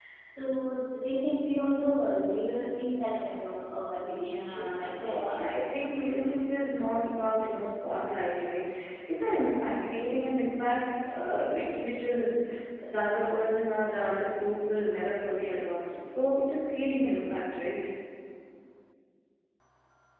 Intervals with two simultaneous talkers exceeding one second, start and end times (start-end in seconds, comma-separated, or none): 4.2-5.5